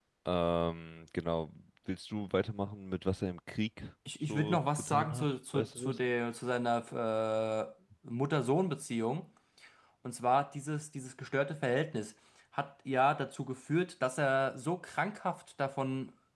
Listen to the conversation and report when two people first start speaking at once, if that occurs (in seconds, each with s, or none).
4.3 s